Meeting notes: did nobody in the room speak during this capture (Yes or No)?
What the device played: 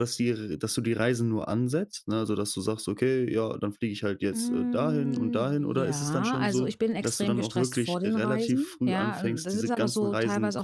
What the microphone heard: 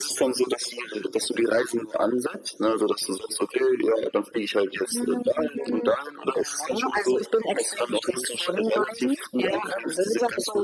Yes